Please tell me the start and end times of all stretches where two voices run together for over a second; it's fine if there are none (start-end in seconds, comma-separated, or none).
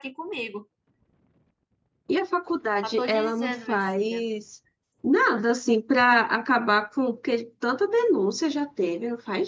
2.8-4.2